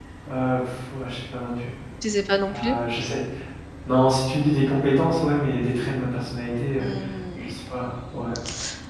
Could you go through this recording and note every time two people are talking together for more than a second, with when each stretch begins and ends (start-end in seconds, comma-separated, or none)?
none